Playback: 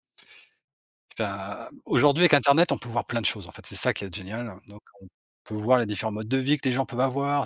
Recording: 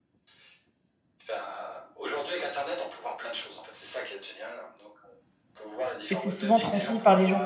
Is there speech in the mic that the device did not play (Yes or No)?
Yes